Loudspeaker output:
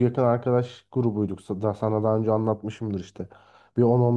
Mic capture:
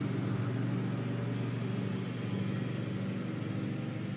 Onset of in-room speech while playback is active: none

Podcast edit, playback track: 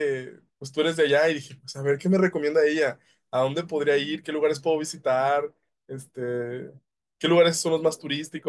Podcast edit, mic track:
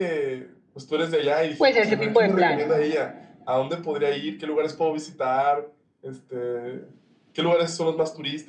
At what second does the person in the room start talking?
2 s

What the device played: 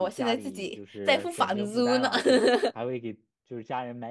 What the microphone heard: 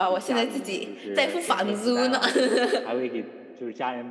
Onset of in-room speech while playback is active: none

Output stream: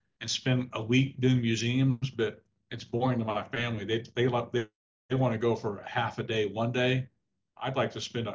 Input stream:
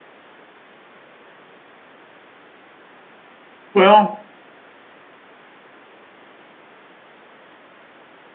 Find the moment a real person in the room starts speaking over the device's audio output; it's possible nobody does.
4 s

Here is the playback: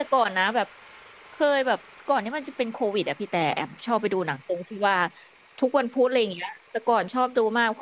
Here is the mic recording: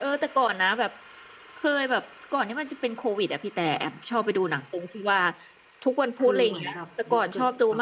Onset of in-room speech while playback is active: 6 s

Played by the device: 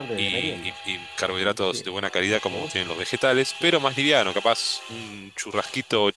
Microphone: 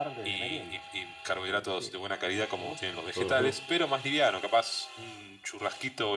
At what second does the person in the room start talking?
3 s

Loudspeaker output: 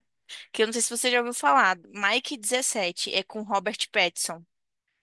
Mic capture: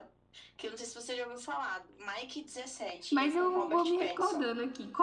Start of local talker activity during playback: 3 s

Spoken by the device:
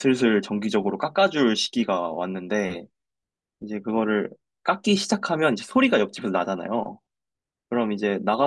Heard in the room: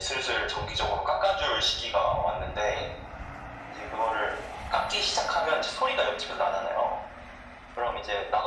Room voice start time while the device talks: none

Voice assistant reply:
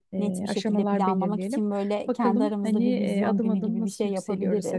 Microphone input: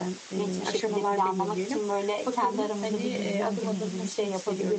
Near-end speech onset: none

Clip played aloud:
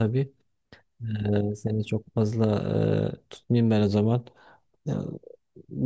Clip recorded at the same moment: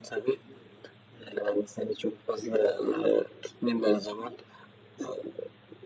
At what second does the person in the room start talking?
none

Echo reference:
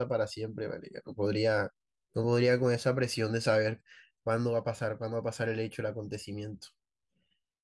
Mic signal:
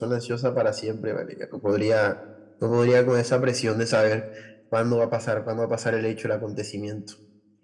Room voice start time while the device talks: none

